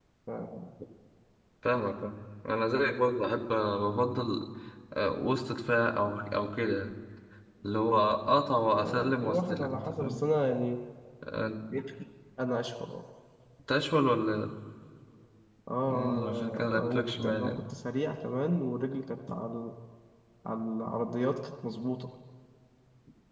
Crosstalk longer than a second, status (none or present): present